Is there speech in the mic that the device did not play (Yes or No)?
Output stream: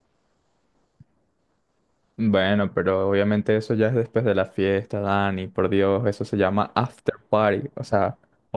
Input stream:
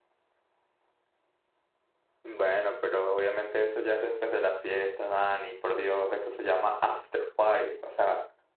No